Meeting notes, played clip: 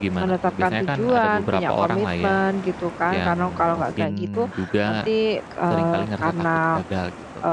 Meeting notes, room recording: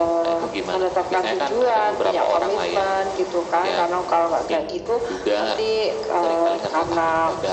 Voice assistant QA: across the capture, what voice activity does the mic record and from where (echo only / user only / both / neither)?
echo only